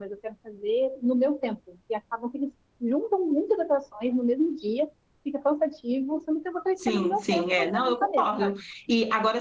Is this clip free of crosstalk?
No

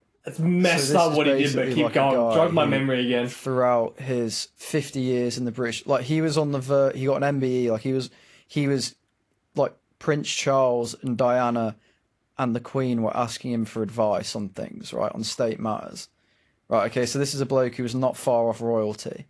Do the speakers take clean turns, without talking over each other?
No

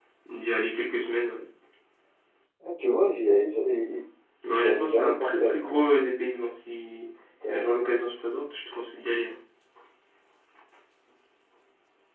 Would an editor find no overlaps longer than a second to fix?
No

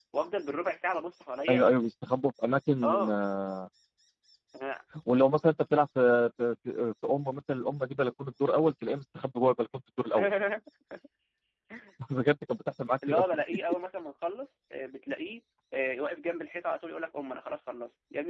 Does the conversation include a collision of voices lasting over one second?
No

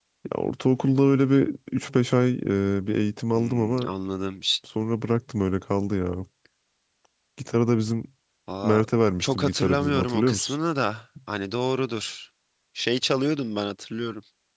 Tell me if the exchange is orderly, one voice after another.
No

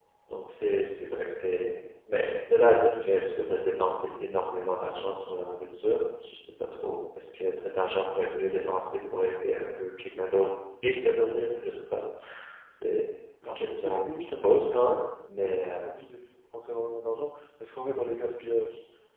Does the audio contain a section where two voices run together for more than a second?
Yes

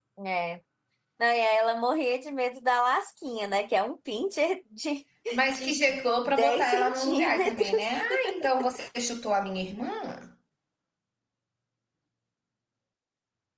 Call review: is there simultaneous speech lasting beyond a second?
Yes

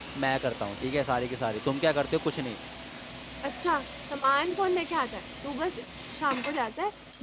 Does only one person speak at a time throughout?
Yes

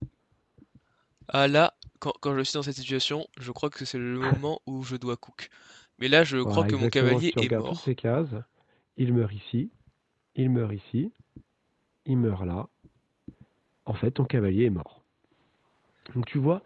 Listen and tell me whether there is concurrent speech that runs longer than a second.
Yes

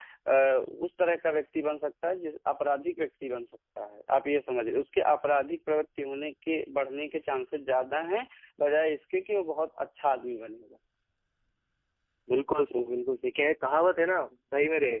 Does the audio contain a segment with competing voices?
No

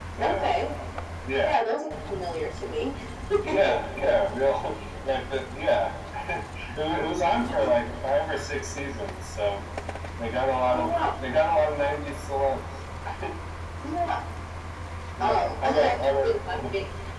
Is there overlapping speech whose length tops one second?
Yes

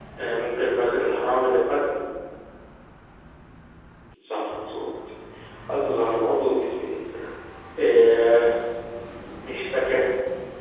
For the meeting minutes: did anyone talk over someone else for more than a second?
No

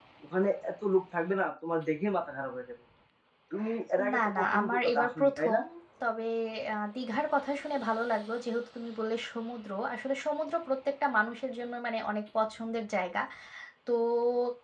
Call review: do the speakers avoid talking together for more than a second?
No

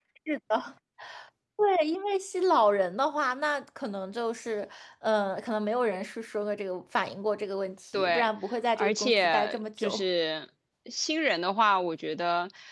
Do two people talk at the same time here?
Yes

